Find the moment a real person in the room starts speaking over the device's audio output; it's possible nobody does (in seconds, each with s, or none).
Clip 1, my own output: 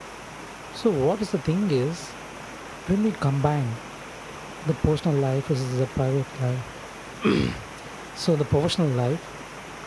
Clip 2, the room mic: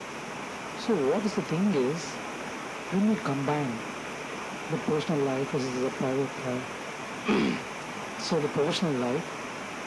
none